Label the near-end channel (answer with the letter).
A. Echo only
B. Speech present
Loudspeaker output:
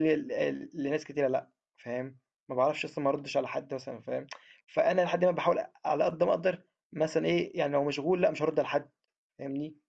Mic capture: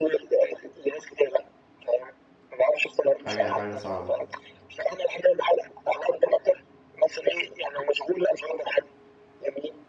B